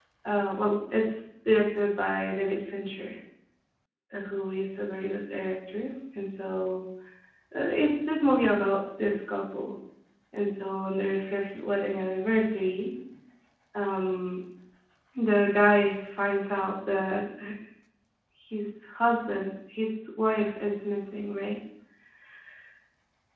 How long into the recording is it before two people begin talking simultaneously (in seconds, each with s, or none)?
none